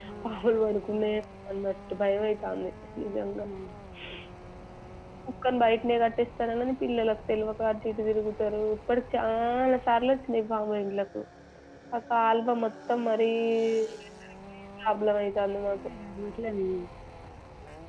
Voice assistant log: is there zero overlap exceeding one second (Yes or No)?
Yes